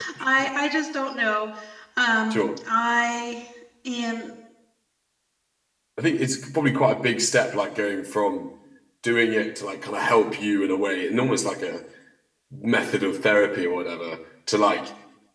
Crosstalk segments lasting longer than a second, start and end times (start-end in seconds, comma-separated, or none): none